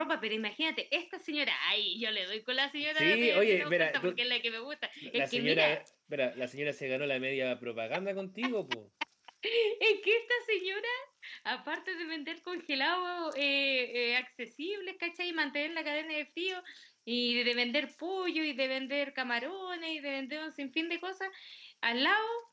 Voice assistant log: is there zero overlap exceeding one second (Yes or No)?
No